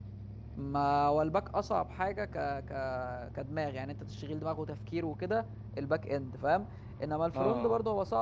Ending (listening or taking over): listening